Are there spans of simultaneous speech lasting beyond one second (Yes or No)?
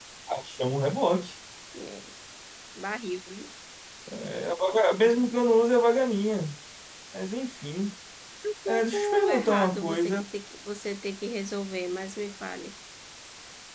Yes